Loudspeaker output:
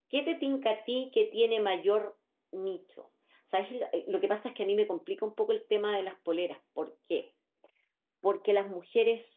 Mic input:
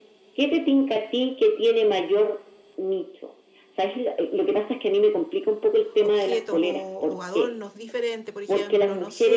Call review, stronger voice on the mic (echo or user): echo